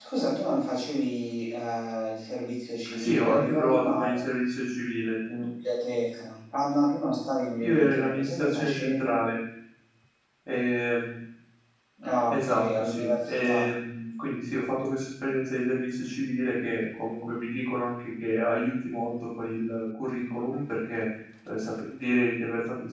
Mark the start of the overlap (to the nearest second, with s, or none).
3 s